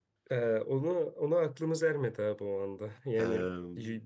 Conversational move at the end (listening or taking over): listening